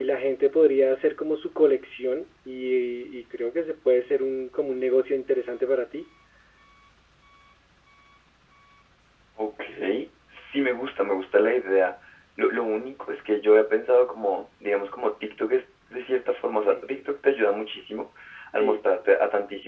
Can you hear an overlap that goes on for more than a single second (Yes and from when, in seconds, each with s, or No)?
No